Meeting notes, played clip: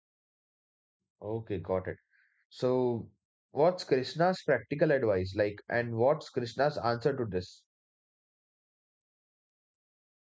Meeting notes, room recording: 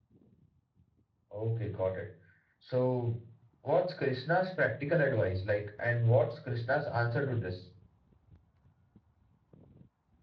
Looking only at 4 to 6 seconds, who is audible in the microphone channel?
echo only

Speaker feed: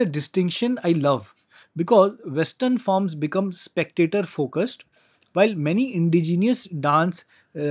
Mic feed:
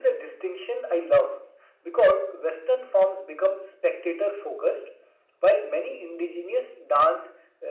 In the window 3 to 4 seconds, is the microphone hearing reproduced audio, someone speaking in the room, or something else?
echo only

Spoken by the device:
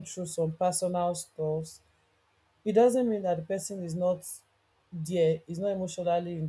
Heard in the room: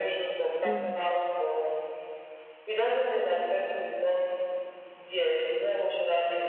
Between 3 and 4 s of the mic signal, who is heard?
echo only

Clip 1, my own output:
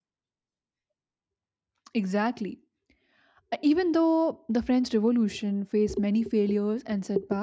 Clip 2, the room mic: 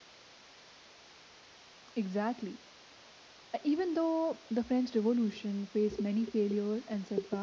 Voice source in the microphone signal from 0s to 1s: neither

